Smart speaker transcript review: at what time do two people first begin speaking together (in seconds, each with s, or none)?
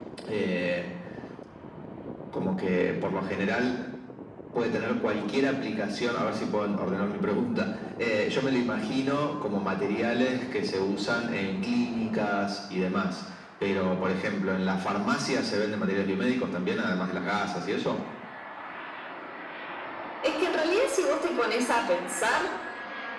none